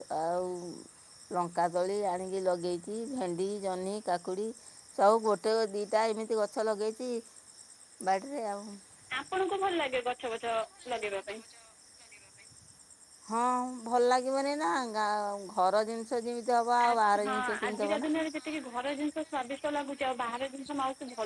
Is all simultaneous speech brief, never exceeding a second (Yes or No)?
No